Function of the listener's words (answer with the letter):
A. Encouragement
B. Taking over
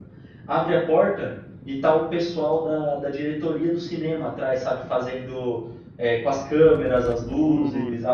A